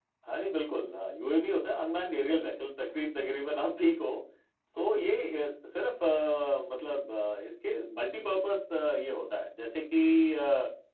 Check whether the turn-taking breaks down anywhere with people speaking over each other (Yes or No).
No